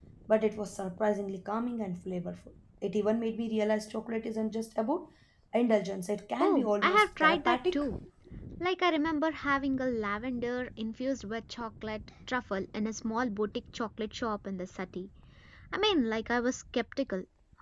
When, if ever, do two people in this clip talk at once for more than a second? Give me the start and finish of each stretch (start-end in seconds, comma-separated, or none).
6.4-7.9